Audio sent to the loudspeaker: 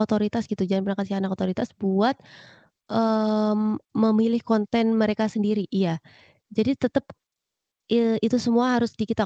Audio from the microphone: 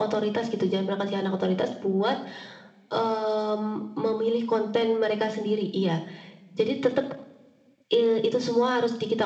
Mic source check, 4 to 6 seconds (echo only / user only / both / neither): echo only